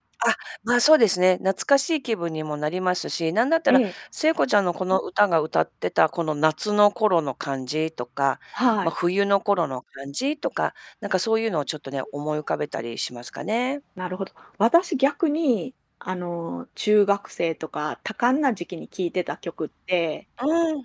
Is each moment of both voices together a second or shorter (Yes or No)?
Yes